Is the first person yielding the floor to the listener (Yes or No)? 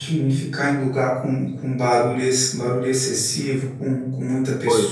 No